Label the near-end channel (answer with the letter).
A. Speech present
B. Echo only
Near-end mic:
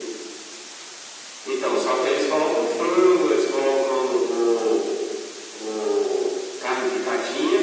B